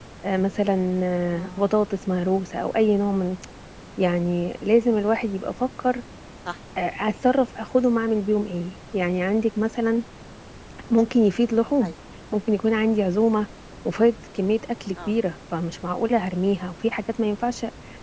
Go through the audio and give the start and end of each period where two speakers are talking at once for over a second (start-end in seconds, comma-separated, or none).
none